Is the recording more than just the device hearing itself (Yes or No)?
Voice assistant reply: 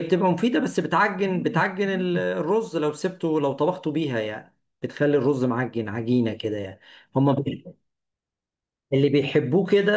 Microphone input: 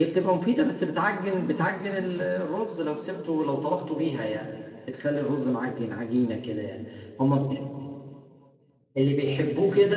No